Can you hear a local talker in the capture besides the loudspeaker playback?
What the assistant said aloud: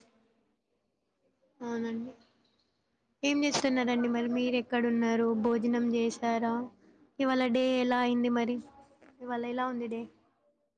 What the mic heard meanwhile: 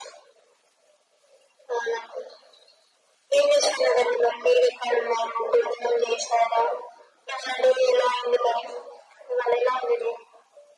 No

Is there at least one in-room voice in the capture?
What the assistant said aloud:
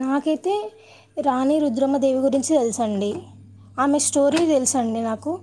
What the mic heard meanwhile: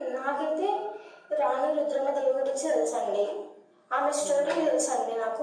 Yes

